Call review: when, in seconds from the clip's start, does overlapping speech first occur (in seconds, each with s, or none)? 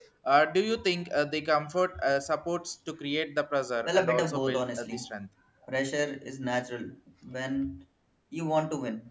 3.8 s